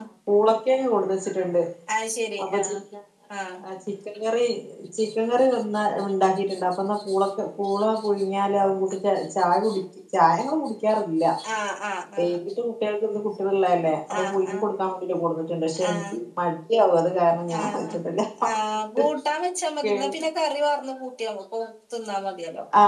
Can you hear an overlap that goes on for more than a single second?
No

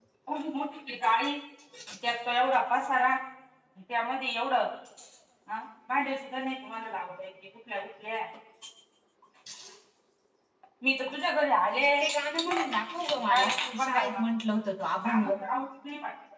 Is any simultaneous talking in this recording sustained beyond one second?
Yes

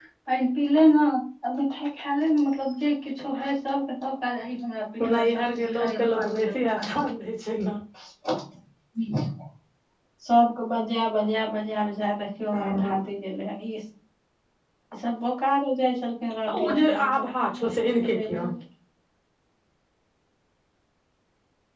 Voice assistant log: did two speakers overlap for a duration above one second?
Yes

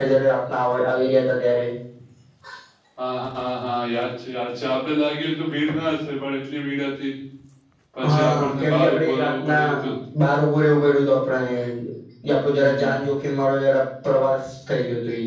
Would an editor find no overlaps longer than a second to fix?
No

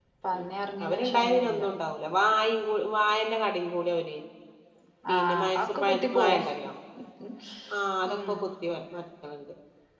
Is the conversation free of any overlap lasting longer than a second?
No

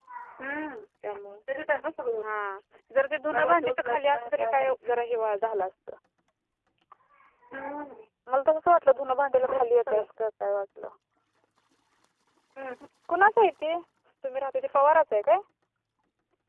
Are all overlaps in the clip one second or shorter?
No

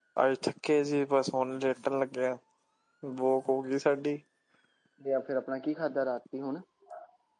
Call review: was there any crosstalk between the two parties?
No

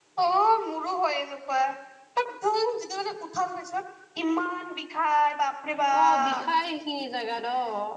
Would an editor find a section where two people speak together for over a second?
No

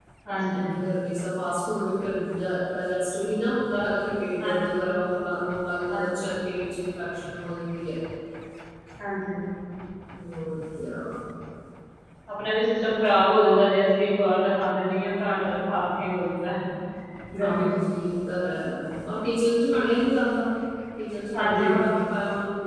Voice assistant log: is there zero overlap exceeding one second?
Yes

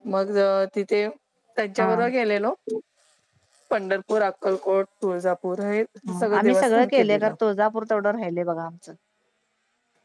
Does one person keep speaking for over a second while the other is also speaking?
Yes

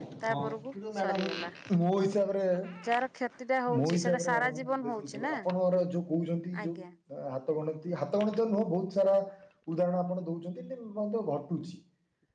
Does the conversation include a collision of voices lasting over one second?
Yes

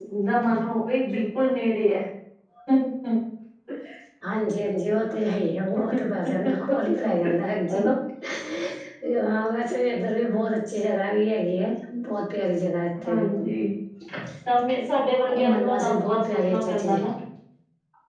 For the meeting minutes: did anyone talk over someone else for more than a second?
Yes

